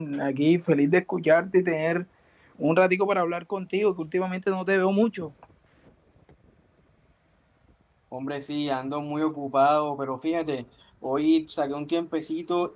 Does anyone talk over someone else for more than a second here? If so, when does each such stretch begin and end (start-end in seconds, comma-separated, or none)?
none